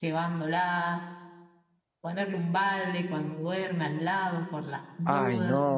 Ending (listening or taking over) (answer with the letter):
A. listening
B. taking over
B